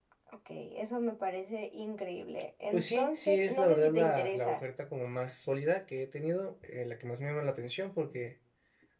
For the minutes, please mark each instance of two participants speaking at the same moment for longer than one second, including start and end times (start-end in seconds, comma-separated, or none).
2.7-4.6